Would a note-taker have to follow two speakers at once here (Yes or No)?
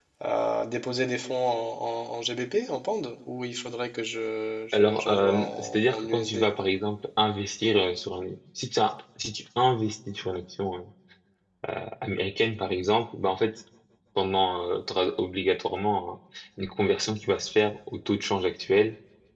Yes